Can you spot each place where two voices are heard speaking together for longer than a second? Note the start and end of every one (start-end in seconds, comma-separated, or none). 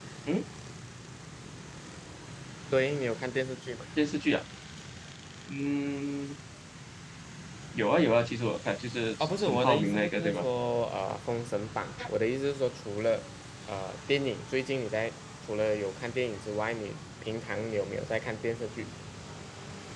9.2-10.4